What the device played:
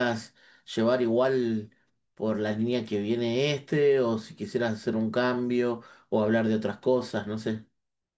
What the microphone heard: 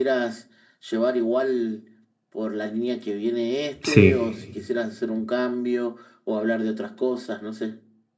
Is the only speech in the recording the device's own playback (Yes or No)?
No